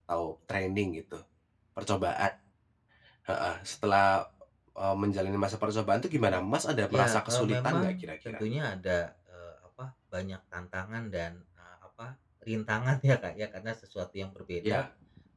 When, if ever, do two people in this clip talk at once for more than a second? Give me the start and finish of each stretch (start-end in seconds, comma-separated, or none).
6.9-8.4